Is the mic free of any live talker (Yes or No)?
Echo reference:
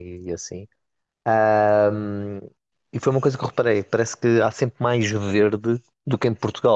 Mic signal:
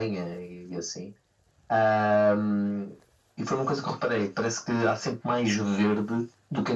Yes